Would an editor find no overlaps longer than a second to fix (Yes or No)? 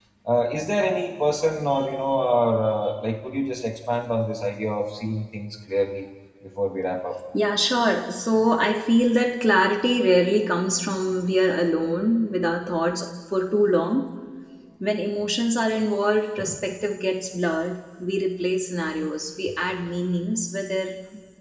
Yes